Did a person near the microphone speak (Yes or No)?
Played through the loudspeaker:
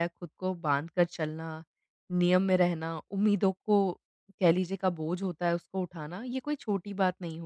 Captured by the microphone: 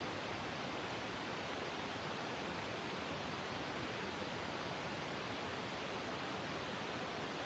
No